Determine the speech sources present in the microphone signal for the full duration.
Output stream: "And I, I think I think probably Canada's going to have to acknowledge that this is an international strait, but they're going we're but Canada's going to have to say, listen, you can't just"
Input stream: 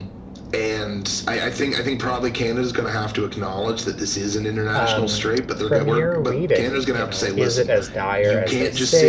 both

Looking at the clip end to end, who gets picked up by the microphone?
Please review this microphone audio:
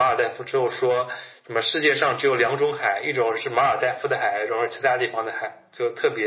echo only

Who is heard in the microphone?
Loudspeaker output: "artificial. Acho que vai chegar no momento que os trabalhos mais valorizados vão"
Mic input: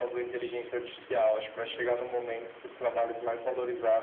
echo only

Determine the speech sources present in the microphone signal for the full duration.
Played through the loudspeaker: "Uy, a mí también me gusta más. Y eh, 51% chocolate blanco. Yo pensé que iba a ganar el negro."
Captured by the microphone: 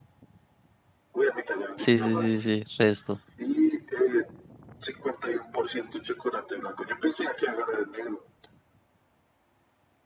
both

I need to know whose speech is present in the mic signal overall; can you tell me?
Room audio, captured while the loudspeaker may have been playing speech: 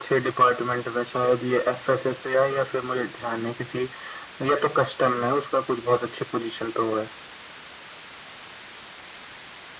echo only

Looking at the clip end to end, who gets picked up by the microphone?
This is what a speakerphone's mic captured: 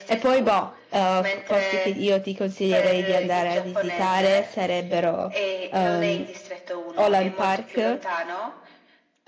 both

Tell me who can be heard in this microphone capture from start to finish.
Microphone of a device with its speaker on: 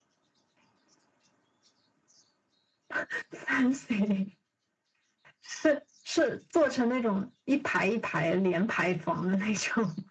echo only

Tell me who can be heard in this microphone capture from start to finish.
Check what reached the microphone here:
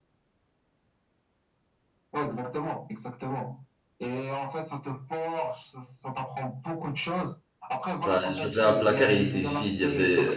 both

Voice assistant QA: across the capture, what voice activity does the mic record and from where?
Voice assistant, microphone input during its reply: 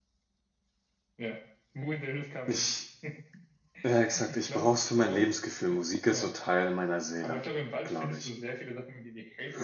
both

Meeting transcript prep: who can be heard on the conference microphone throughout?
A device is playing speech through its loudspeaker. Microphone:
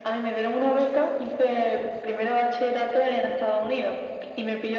echo only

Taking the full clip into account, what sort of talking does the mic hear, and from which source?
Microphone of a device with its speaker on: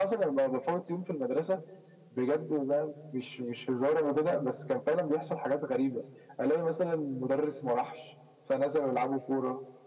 echo only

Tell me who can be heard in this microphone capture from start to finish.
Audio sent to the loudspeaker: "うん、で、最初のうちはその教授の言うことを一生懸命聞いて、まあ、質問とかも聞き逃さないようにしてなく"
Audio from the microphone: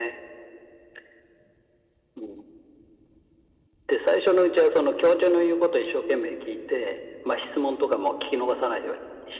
echo only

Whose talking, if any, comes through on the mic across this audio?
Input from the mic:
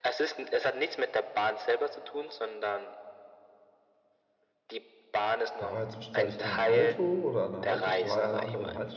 both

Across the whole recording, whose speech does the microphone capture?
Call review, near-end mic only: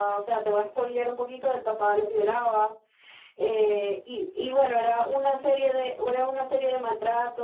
echo only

